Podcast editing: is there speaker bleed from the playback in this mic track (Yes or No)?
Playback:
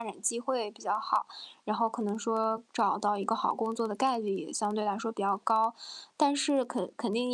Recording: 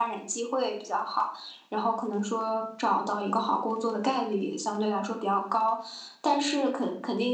Yes